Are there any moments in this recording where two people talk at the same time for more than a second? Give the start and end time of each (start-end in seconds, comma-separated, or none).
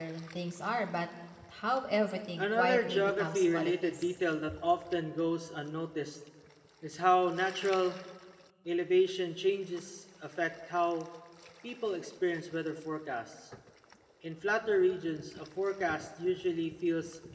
2.4-4.0